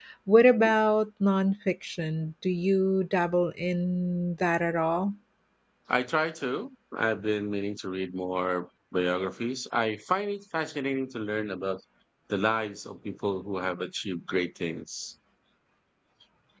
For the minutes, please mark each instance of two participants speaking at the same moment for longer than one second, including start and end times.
none

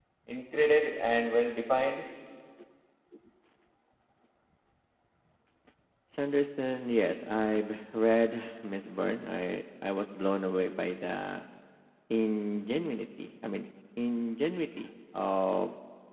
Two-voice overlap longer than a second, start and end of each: none

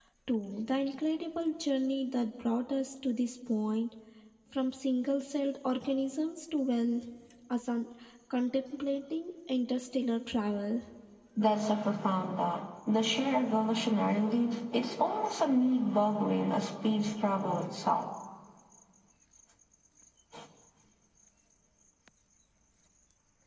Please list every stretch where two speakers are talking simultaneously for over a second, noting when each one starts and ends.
none

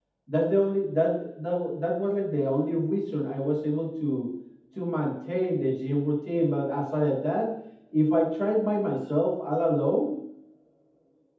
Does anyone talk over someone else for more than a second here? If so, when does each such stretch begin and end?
none

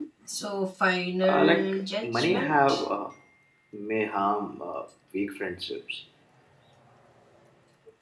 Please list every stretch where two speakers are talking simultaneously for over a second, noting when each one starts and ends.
1.3-2.9

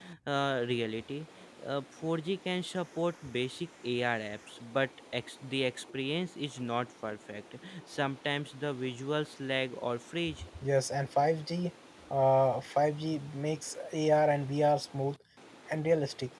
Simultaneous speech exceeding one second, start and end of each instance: none

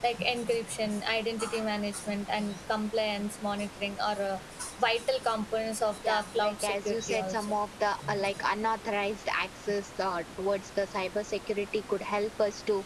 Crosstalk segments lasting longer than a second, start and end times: 6.1-7.5

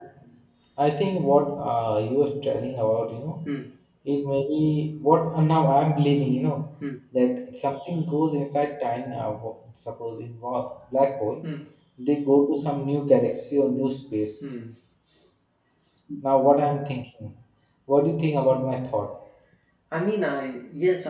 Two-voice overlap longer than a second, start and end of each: none

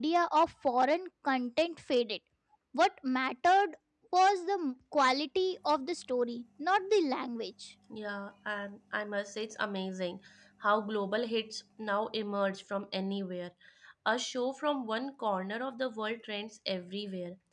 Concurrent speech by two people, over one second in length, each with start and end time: none

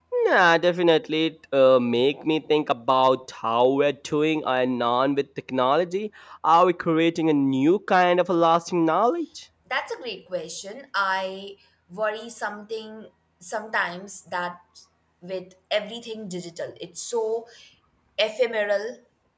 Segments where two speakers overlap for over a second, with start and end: none

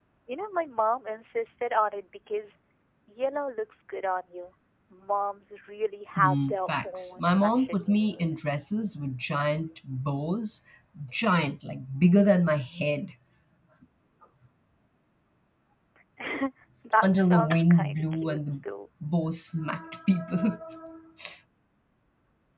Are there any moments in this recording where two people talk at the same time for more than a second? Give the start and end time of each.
6.2-8.3, 17.0-18.4

